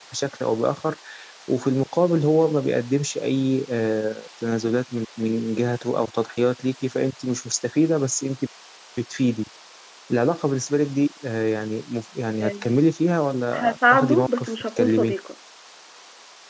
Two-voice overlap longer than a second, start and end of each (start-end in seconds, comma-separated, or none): 13.5-15.1